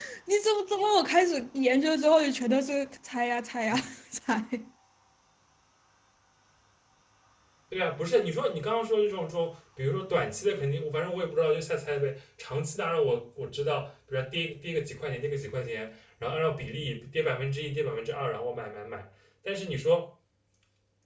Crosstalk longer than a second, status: none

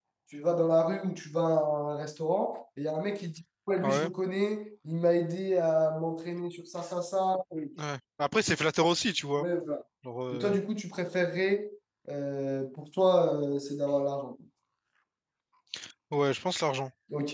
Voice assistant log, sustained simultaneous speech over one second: none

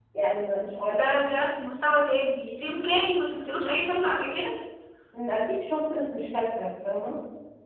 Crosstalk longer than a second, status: none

